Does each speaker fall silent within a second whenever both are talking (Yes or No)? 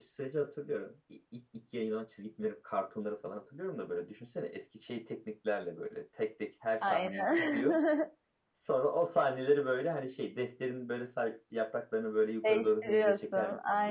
No